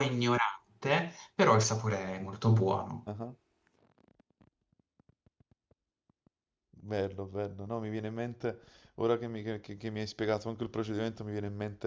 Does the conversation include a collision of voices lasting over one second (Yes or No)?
No